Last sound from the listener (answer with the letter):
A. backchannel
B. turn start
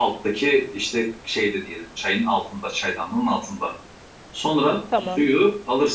A